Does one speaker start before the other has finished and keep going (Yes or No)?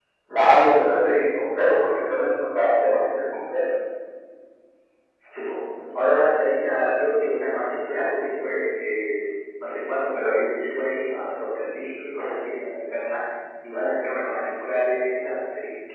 No